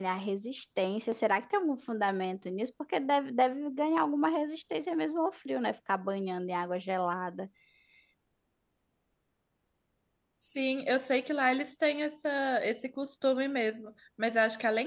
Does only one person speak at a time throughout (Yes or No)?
Yes